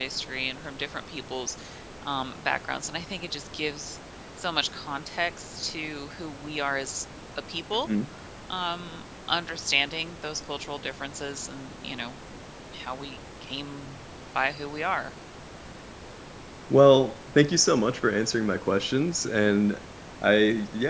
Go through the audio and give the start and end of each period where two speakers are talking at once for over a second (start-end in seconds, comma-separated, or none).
none